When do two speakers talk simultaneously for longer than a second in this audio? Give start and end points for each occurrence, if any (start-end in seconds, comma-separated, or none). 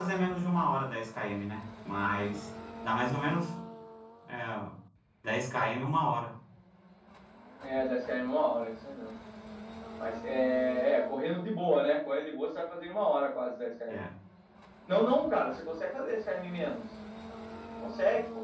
none